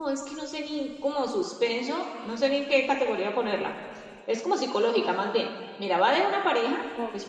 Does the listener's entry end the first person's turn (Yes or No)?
No